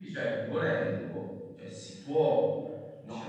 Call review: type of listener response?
taking over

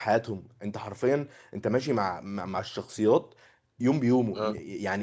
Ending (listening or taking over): listening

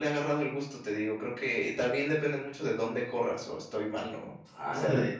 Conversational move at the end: taking over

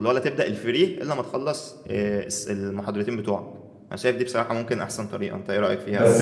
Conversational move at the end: taking over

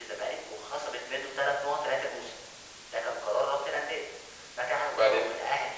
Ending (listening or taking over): listening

